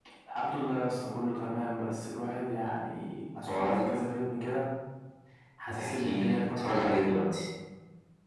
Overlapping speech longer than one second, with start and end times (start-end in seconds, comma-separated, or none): 5.8-7.0